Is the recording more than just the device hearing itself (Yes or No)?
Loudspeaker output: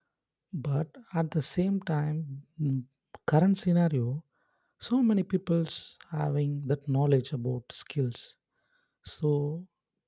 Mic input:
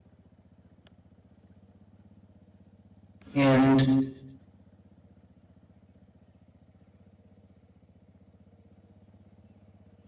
Yes